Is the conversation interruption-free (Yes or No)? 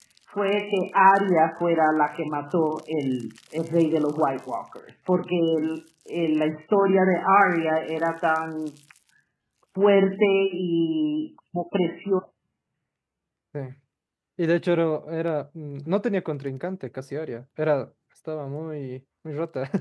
Yes